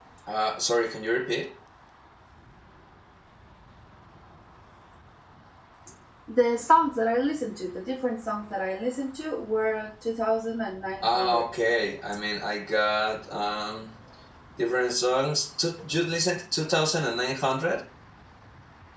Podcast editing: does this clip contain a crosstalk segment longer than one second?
No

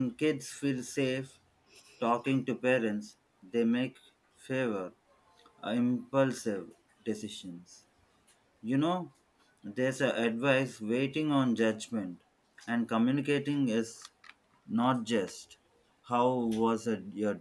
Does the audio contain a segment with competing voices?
No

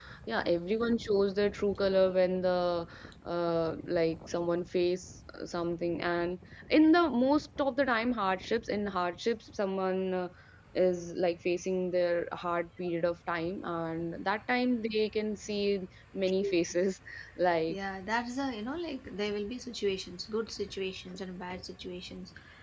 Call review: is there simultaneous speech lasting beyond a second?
No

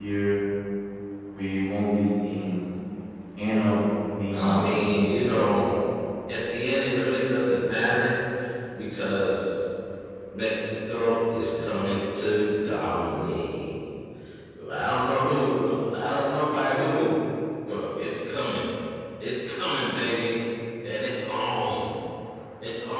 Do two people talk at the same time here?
Yes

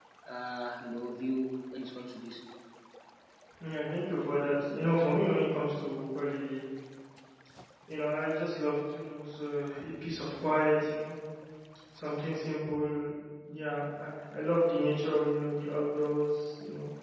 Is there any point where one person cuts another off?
No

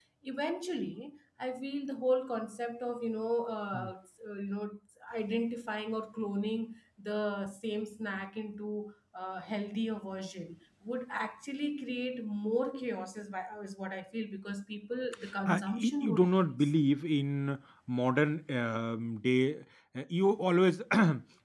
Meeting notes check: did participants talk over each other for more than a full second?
Yes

